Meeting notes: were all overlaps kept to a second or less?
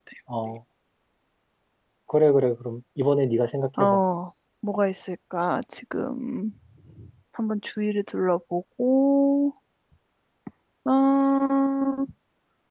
Yes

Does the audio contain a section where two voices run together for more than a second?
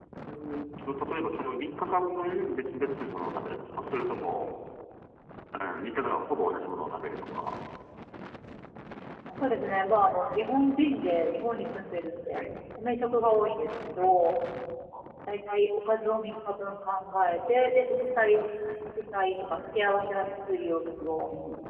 No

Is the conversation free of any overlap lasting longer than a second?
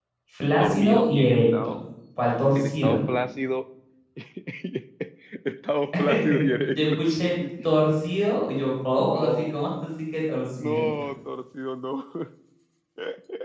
No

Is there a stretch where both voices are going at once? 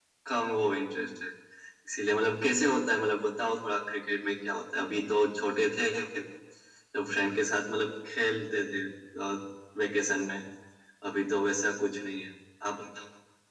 No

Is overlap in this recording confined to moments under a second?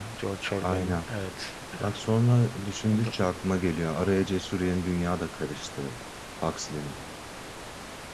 Yes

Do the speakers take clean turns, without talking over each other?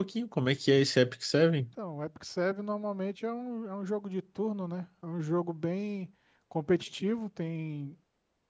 Yes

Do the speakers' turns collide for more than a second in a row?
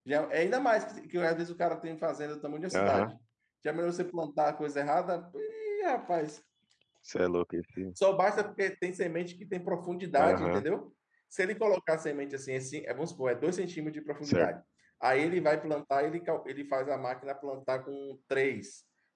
No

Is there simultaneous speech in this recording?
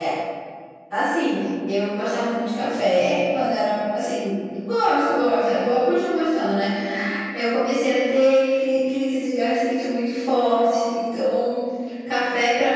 No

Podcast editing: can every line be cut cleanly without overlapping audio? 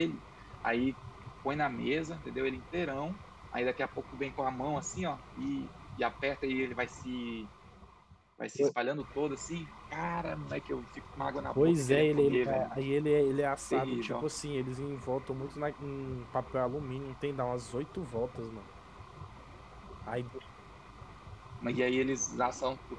No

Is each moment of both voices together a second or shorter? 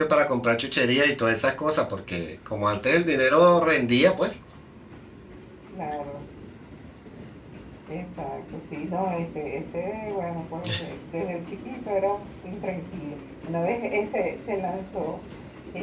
Yes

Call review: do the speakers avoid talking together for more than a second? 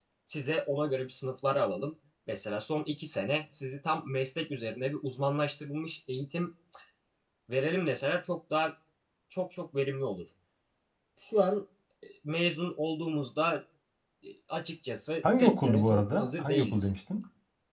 No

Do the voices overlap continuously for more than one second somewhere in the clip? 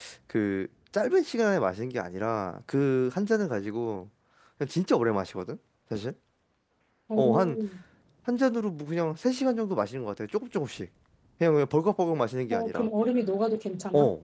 No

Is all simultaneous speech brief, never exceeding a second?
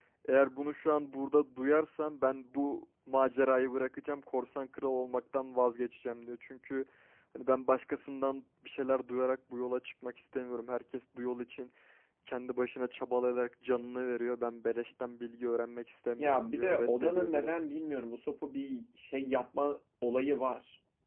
No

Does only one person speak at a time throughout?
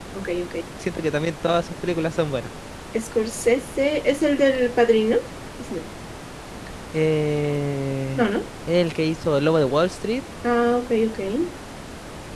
Yes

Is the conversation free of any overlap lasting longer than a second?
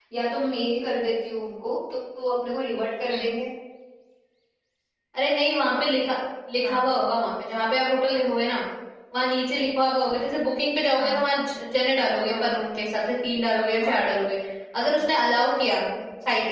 Yes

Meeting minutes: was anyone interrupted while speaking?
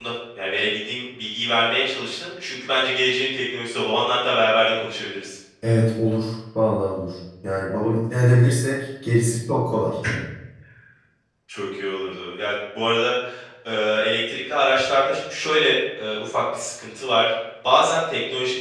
No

